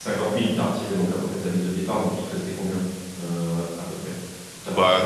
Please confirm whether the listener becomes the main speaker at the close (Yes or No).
Yes